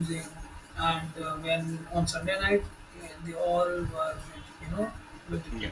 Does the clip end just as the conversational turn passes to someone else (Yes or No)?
No